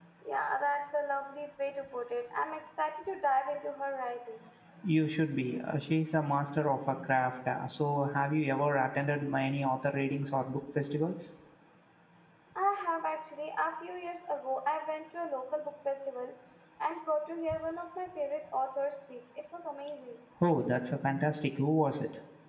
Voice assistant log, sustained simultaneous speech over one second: none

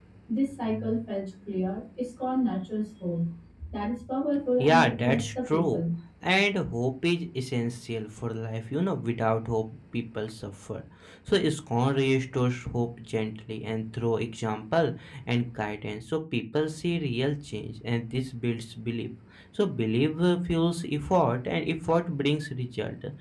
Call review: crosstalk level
present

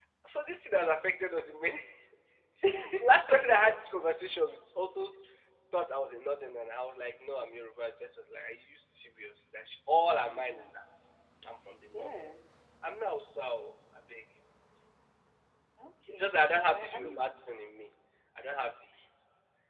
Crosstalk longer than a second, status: present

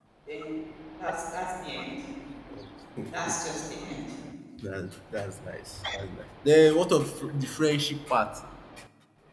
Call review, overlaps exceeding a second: none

